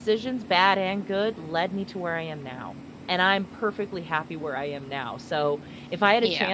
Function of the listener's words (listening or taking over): listening